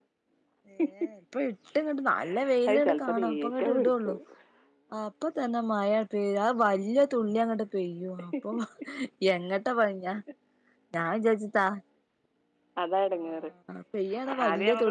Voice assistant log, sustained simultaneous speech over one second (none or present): present